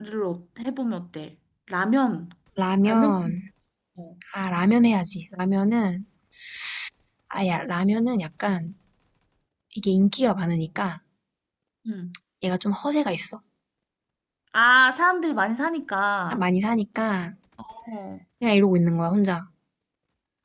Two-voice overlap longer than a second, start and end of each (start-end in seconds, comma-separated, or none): none